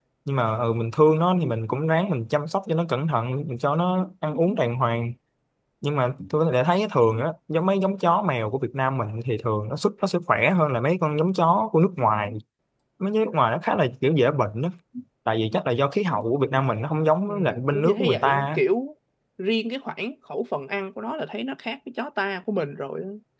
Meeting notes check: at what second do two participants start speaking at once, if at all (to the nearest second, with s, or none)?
17 s